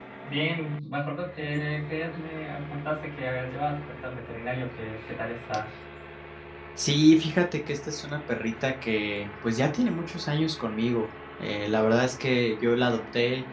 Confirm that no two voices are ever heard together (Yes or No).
Yes